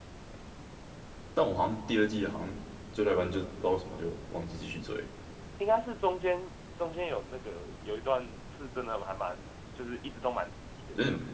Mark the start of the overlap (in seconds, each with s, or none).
none